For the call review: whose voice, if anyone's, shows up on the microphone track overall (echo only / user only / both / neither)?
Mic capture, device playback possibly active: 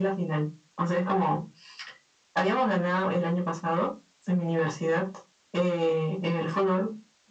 echo only